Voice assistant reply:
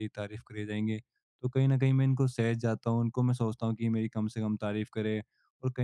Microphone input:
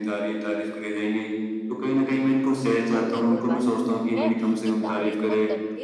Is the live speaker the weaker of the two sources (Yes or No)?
Yes